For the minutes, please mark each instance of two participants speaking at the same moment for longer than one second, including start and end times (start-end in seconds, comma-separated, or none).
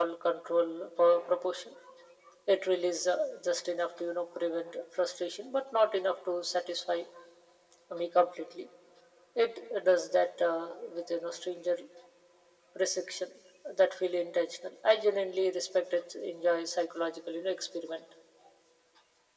none